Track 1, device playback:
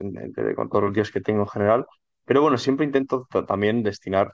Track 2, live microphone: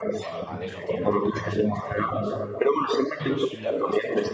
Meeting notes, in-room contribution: present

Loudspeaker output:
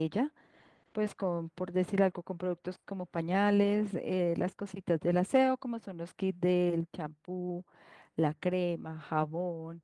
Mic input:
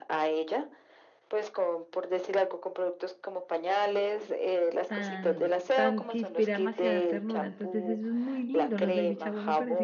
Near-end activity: present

